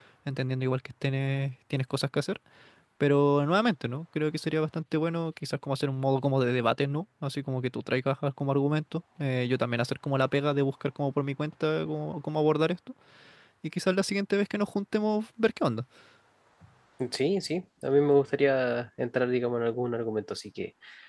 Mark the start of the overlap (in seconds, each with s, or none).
none